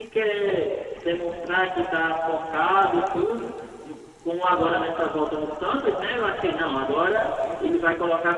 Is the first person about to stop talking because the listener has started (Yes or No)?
No